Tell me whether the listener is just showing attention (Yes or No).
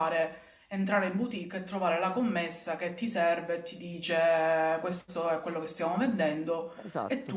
No